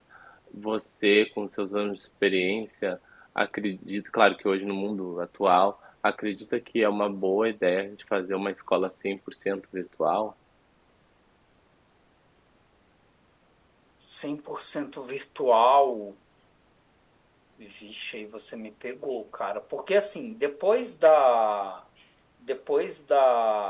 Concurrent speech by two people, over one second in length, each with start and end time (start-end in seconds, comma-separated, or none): none